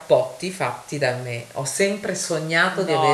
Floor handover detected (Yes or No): Yes